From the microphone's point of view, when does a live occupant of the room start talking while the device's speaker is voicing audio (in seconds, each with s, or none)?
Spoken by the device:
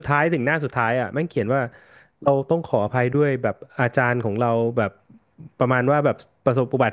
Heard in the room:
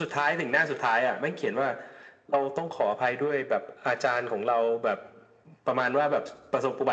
none